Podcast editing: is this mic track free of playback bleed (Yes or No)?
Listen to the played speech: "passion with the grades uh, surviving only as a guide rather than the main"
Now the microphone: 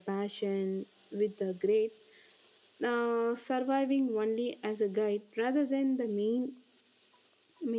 No